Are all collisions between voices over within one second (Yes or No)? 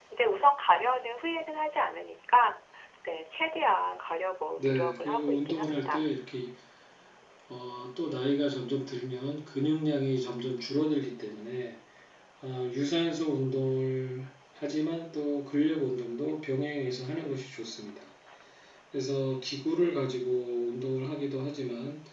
No